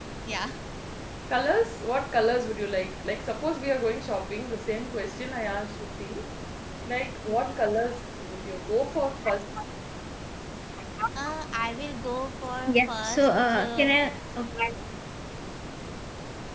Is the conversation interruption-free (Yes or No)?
No